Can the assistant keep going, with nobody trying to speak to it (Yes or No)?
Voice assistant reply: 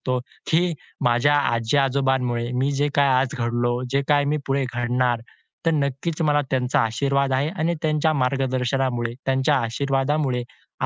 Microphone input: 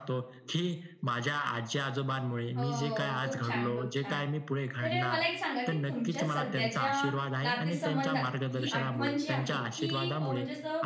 No